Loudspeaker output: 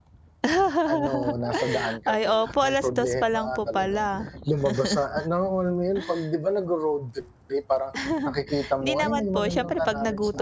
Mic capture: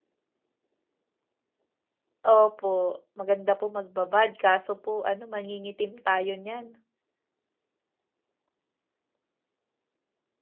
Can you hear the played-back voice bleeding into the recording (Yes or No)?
No